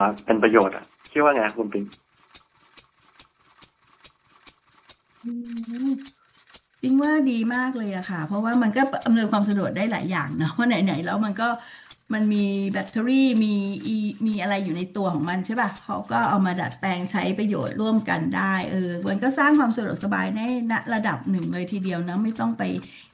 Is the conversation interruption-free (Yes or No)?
Yes